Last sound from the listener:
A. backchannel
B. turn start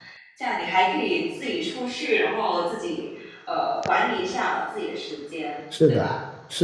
B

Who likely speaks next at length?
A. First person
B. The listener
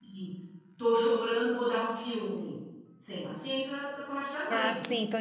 B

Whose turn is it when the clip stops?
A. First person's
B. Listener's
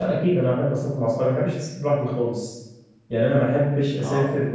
A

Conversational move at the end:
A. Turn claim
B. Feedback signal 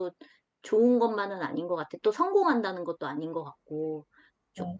A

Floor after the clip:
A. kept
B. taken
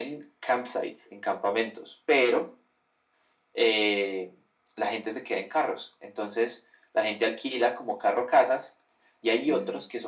A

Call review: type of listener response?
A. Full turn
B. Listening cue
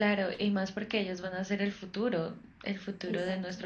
B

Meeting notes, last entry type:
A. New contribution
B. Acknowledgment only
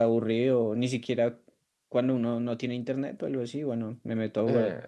A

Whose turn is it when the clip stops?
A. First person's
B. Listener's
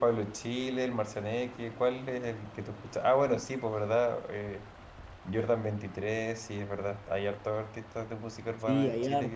B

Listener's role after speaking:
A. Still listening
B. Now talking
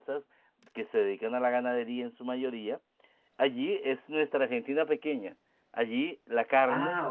A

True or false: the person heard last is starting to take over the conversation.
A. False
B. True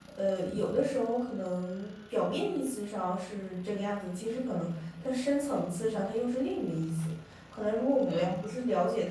A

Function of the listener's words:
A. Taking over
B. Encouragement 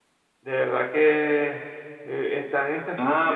A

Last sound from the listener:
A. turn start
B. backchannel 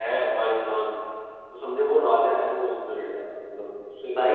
A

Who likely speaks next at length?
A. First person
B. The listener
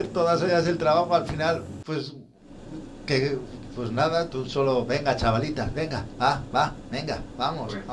B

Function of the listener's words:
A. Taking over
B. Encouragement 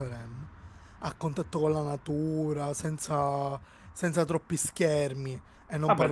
A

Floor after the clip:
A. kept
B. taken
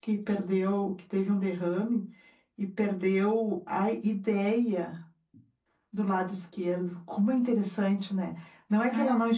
A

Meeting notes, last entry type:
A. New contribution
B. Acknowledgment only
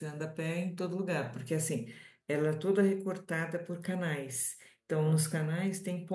B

